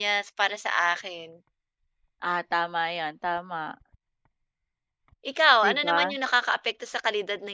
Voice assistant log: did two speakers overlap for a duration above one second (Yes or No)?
No